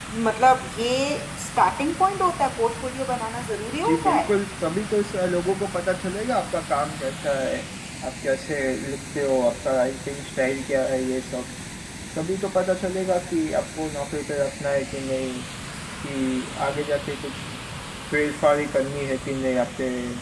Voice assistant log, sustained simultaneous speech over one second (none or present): none